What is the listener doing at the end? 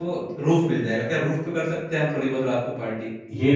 taking over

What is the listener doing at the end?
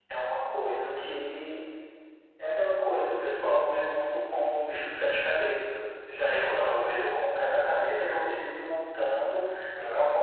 listening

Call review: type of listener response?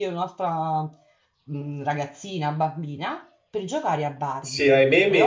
taking over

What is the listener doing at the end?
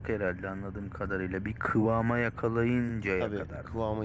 taking over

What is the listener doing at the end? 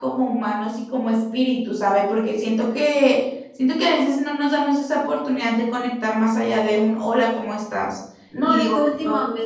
taking over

